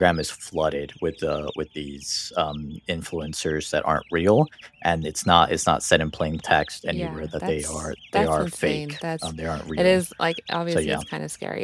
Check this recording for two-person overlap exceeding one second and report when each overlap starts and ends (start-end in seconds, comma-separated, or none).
6.9-9.3